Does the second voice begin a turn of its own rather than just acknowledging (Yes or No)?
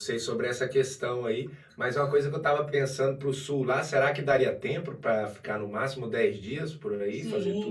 Yes